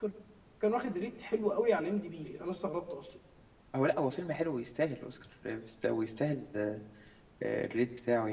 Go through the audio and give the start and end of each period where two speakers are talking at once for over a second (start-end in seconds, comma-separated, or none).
none